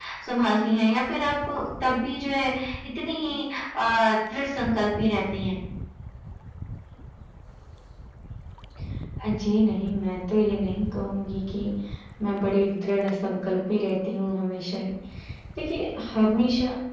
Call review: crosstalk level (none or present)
none